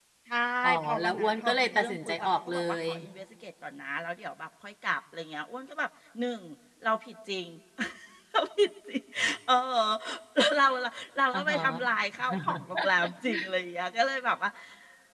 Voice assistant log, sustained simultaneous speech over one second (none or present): present